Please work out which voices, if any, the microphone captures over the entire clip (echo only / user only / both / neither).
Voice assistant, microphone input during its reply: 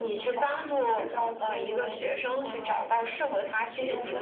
echo only